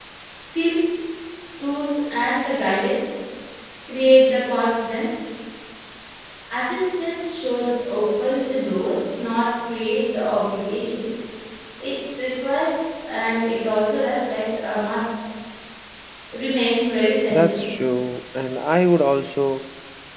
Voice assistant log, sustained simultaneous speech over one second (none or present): none